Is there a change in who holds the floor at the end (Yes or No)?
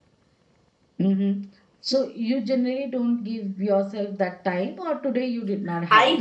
Yes